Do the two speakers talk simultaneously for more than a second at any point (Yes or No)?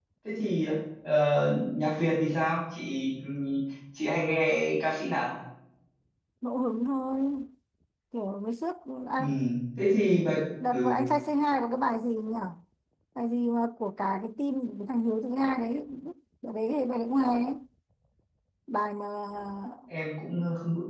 No